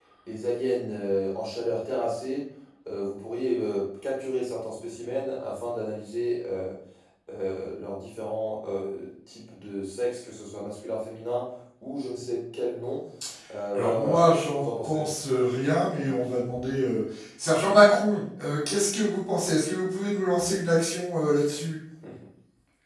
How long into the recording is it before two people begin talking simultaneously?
13.7 s

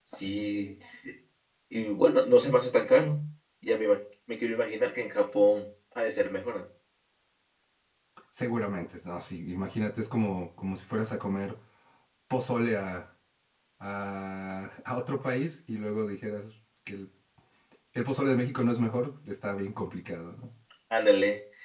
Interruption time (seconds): none

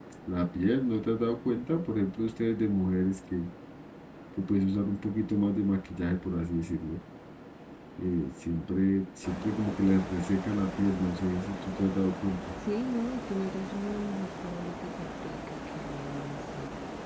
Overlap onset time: none

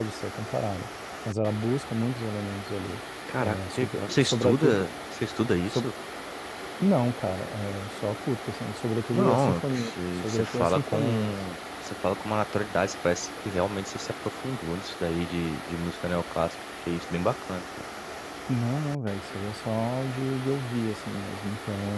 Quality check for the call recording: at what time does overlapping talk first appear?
3.4 s

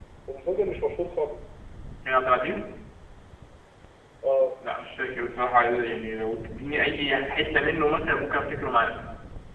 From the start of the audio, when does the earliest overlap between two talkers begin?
none

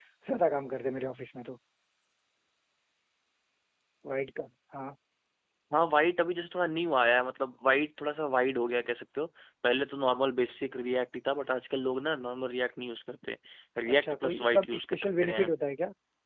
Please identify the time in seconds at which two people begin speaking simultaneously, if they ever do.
13.9 s

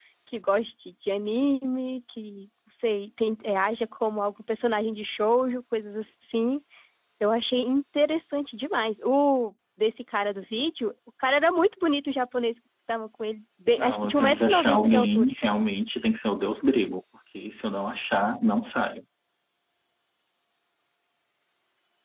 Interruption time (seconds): 13.8 s

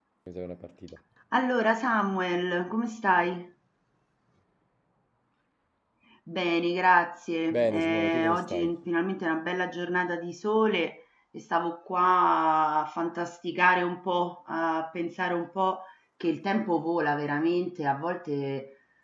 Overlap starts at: 7.5 s

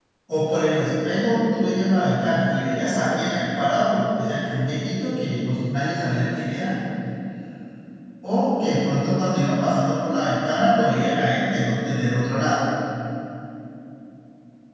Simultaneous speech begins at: none

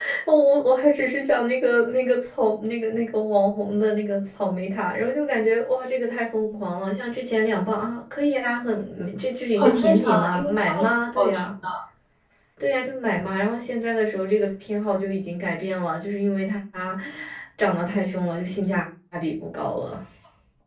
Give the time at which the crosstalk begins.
9.6 s

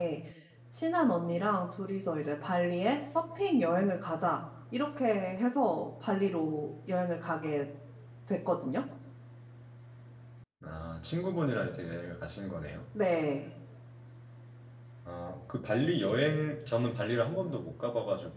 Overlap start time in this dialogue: none

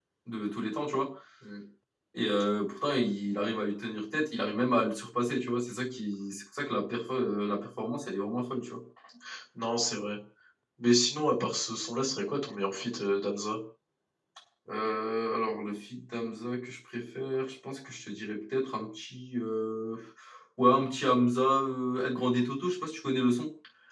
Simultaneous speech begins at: none

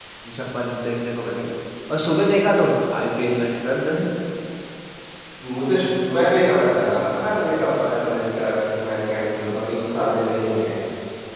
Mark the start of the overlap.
none

